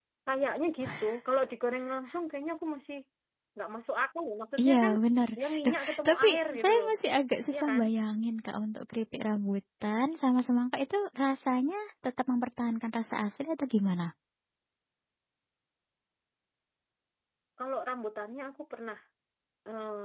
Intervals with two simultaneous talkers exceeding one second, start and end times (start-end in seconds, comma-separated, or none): 5.4-6.9